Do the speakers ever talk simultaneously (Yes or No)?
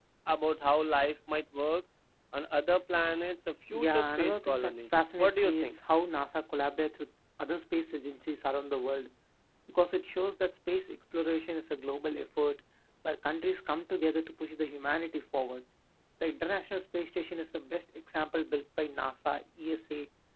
Yes